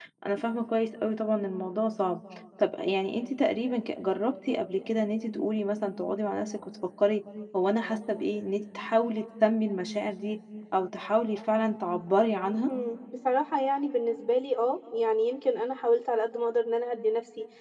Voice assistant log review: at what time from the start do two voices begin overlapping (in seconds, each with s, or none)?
none